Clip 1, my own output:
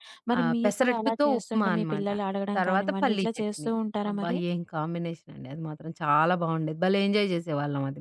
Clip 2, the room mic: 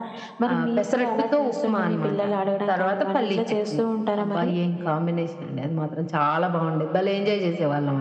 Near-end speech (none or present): none